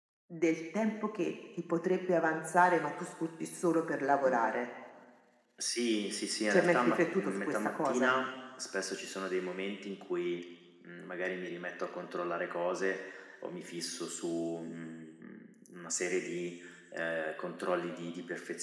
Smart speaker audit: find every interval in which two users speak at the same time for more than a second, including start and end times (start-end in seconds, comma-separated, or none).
6.5-8.1